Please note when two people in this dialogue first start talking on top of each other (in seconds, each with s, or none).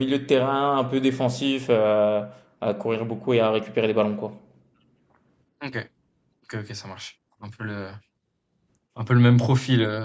none